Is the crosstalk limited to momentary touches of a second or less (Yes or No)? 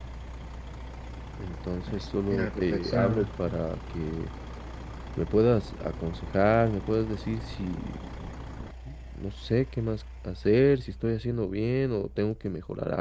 No